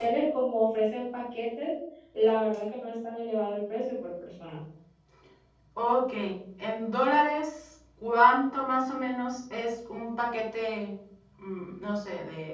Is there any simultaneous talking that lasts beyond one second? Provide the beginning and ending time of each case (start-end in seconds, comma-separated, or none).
none